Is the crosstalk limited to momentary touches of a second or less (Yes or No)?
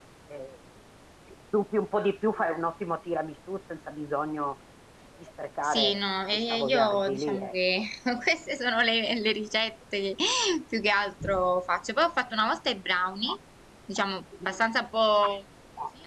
No